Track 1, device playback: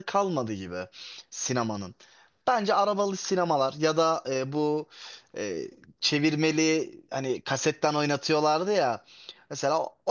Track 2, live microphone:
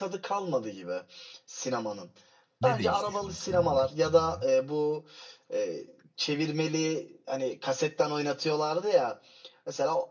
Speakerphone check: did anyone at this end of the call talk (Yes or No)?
Yes